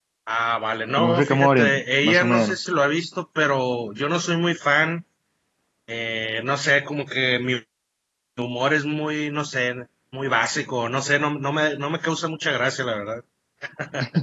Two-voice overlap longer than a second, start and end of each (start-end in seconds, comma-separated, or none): 0.9-2.7